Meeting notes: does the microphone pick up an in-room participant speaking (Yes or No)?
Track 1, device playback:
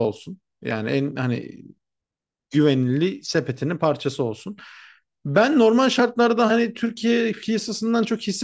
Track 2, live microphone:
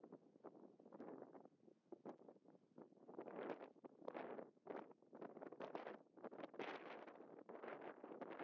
No